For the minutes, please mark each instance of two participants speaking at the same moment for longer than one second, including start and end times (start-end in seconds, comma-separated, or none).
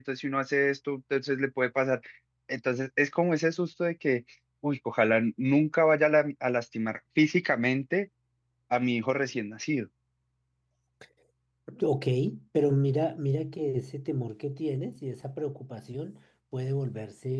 none